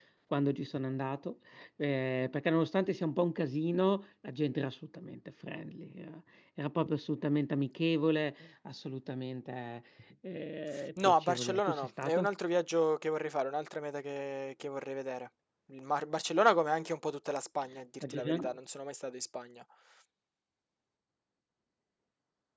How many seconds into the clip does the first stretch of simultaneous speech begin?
11.0 s

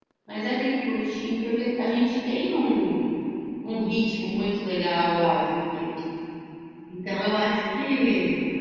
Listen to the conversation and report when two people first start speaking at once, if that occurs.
none

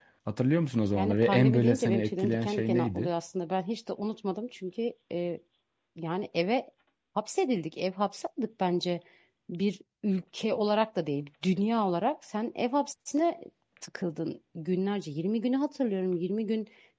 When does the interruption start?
1.0 s

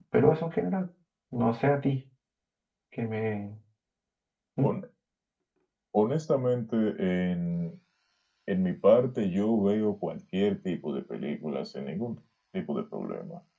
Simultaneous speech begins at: none

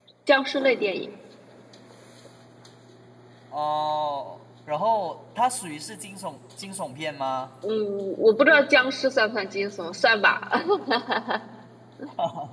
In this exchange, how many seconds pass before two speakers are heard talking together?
none

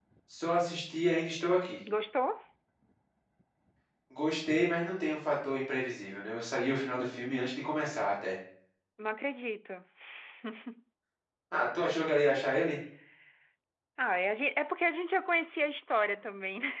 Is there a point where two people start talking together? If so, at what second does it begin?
none

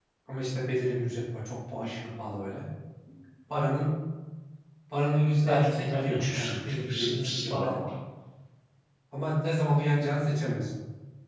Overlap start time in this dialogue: 5.4 s

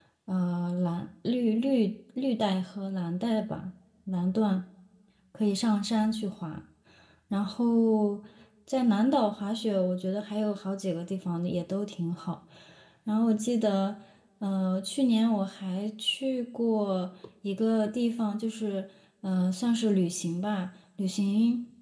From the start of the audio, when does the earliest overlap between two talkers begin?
none

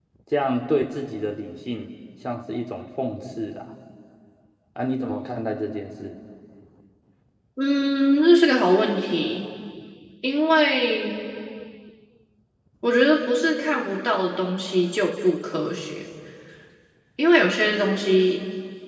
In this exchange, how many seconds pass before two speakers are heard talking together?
none

